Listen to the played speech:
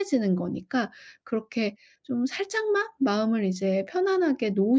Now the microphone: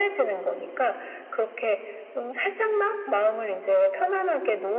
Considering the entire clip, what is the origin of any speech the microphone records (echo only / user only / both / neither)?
echo only